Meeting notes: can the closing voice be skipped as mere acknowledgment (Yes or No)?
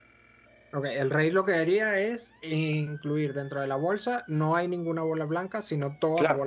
No